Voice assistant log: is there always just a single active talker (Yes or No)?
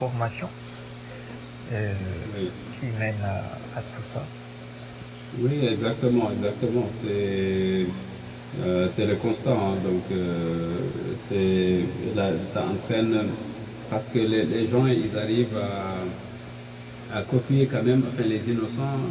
Yes